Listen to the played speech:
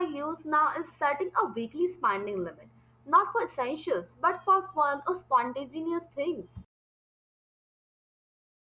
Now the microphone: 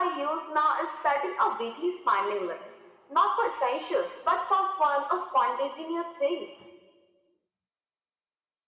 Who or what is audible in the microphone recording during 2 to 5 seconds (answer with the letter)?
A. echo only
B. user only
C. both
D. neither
A